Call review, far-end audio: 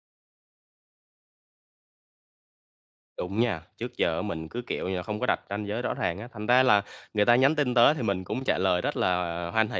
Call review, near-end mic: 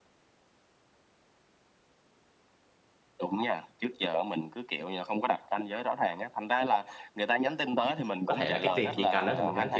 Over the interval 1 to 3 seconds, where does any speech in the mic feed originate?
neither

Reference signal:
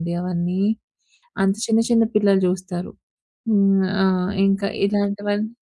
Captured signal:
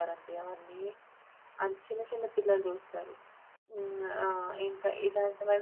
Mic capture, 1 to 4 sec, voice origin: echo only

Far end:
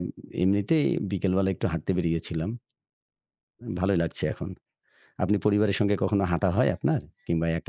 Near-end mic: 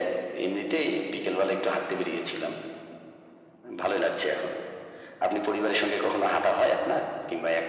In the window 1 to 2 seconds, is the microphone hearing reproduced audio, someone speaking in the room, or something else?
echo only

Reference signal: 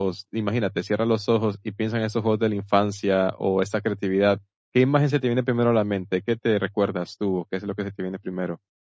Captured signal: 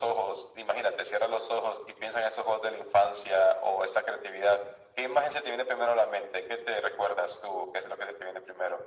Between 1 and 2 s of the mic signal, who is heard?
echo only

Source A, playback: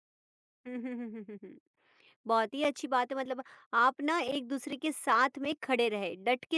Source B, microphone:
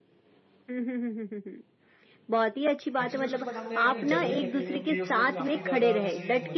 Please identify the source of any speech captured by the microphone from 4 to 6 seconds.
both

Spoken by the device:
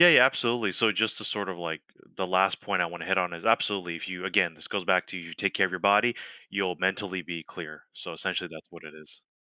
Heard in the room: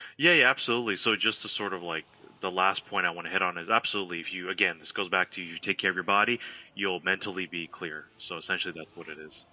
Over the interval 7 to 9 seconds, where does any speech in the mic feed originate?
echo only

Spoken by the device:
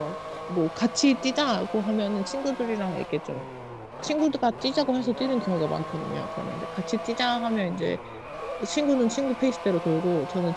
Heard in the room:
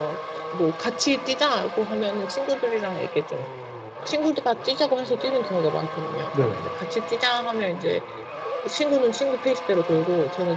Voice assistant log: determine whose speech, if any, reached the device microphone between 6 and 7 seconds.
both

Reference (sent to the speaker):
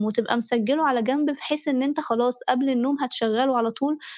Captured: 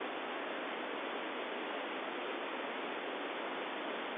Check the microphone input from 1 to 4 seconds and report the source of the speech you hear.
neither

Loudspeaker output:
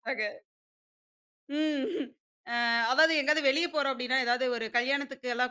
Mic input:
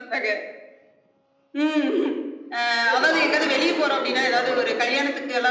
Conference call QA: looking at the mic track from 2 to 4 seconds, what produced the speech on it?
both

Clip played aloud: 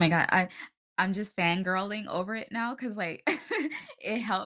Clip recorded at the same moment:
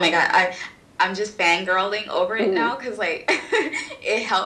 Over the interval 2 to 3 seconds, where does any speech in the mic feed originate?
both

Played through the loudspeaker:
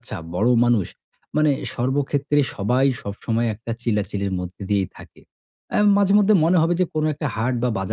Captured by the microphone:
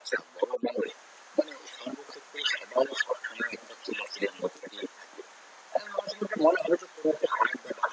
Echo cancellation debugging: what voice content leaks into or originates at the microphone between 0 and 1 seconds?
echo only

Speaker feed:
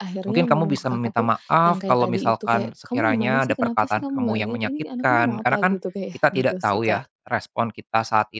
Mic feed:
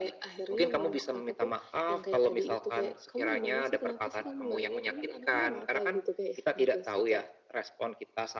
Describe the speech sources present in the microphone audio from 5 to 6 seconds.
echo only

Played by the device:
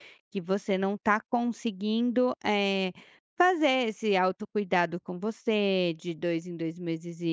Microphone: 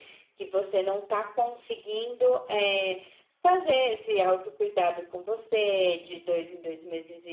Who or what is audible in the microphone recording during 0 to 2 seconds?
echo only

